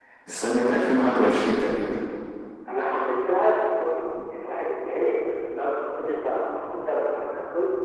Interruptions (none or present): none